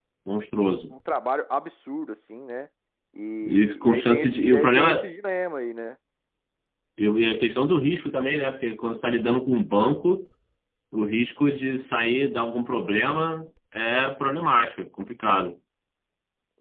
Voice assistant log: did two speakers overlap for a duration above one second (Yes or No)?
Yes